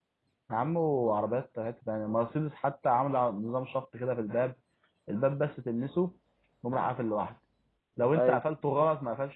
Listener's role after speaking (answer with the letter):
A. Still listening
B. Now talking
A